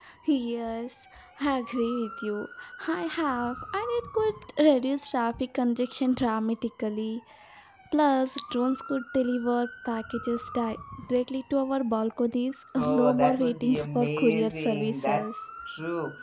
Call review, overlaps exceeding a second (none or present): present